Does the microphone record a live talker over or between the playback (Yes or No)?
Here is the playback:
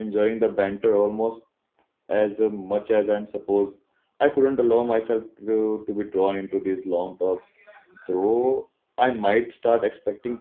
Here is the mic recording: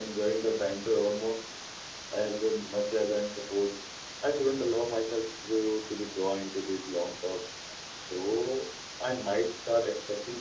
No